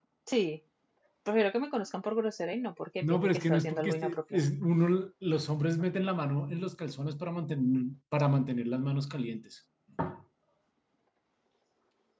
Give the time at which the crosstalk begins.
3.0 s

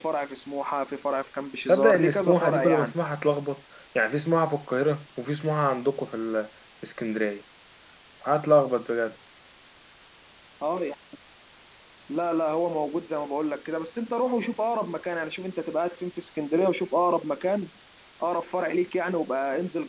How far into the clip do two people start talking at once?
1.7 s

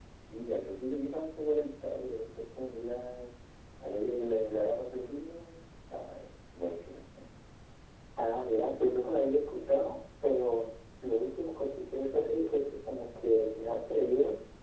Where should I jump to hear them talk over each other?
none

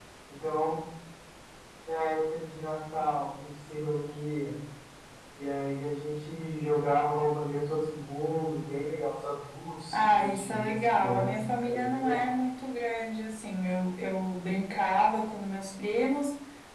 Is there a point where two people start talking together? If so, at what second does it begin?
9.9 s

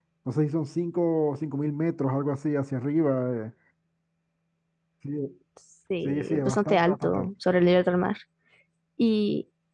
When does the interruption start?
6.0 s

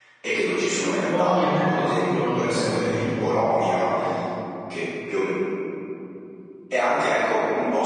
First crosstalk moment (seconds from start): 1.1 s

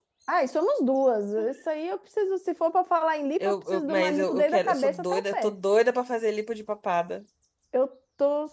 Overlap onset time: 3.4 s

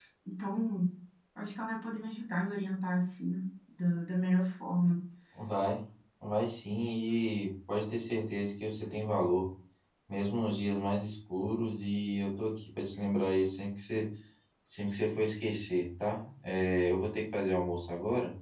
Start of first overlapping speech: none

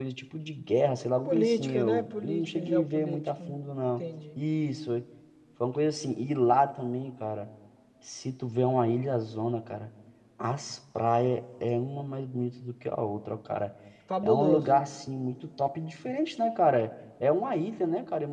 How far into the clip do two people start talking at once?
1.2 s

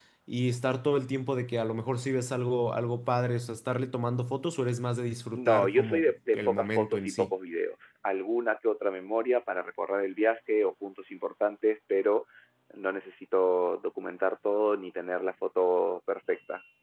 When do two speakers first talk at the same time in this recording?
5.3 s

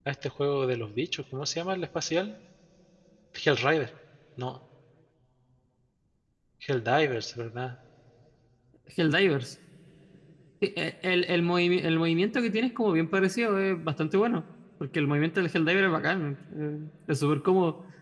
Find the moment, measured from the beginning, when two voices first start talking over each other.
none

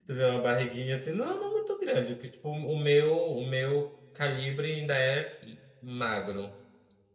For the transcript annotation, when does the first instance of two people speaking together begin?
none

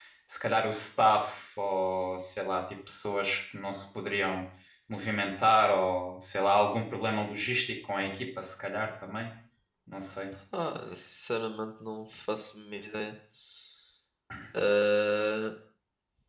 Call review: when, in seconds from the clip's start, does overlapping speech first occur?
none

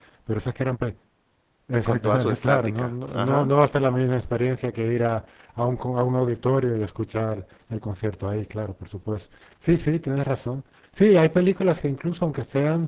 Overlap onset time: 1.9 s

